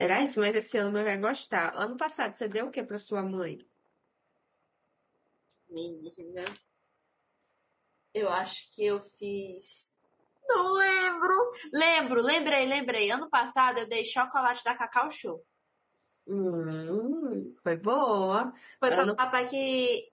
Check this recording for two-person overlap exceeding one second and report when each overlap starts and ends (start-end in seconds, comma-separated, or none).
none